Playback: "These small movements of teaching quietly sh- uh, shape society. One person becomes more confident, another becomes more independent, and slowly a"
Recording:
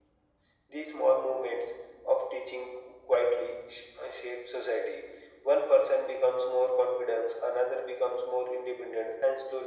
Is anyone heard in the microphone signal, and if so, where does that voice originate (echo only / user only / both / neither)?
echo only